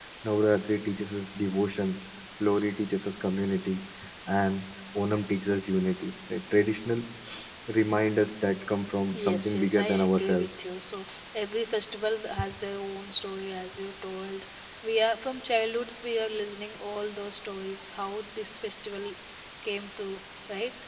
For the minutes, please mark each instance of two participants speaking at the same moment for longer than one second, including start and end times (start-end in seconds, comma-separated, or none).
9.2-10.5